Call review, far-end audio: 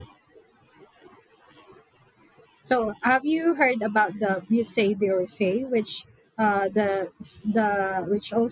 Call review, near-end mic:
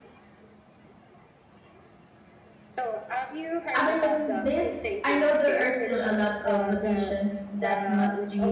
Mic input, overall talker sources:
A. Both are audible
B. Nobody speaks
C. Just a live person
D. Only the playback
A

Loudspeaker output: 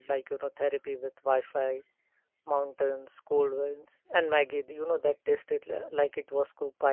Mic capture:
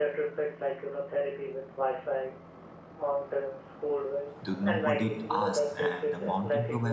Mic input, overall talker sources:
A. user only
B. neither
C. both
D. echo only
C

